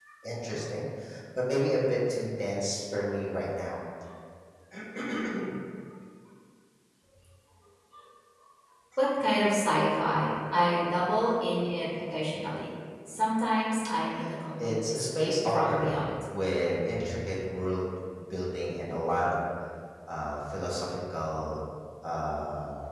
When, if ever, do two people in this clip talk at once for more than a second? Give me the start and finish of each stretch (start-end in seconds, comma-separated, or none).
14.7-16.0